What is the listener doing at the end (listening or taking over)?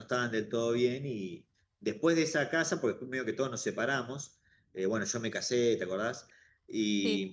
listening